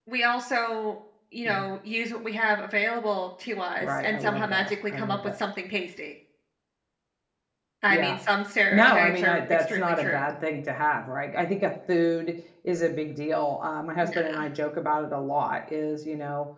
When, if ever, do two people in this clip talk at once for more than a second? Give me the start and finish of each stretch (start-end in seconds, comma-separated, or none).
3.8-5.2, 8.7-10.2